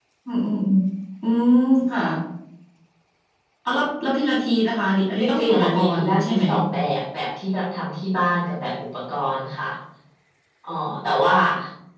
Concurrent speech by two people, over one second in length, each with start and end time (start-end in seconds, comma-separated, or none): 5.2-6.4